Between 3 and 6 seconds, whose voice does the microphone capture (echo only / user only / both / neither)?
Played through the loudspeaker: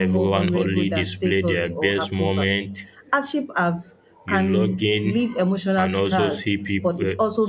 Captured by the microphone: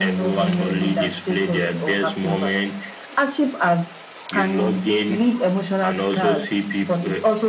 echo only